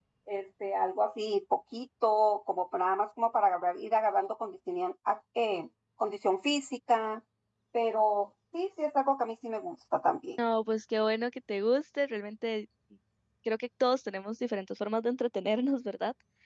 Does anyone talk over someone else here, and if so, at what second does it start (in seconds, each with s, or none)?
none